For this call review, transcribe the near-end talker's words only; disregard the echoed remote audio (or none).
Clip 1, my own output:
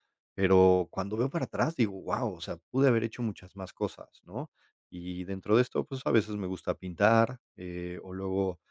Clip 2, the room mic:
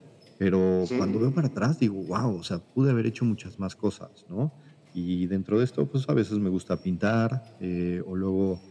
Ujú.